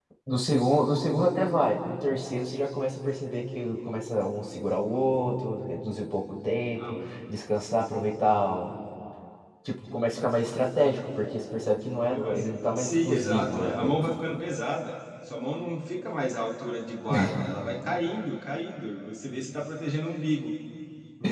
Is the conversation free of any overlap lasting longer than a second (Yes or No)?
No